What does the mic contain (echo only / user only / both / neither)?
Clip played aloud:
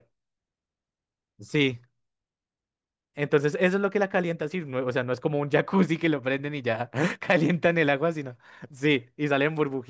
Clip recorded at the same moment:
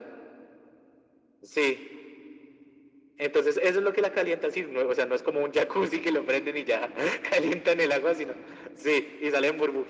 echo only